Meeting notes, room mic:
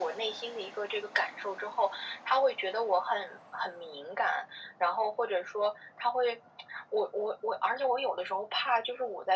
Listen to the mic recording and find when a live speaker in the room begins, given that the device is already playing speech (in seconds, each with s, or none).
none